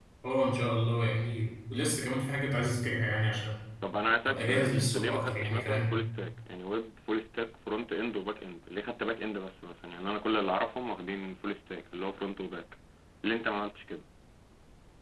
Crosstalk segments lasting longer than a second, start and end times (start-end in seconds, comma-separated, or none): 4.3-5.9